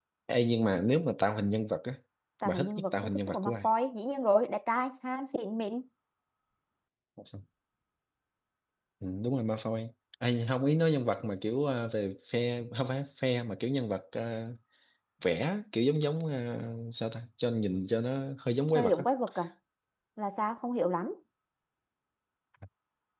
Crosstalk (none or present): present